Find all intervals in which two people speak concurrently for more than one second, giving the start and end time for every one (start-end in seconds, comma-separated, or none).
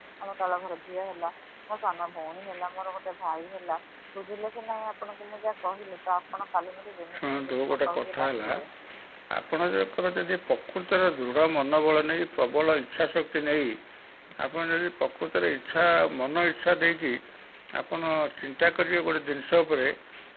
7.2-8.5